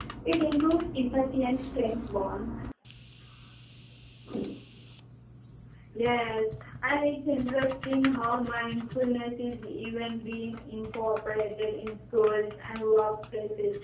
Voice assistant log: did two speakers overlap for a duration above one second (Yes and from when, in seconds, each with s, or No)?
No